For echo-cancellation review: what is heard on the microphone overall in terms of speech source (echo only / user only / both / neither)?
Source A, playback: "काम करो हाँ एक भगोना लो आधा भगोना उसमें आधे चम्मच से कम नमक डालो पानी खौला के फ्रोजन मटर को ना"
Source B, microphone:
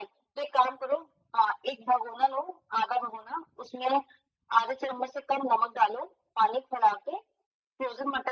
echo only